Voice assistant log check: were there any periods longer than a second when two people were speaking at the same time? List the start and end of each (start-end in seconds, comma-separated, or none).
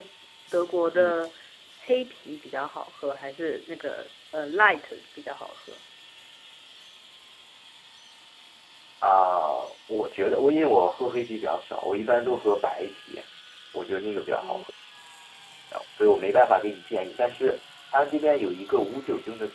none